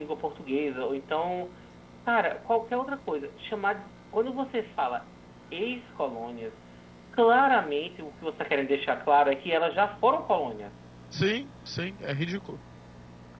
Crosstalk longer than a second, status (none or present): none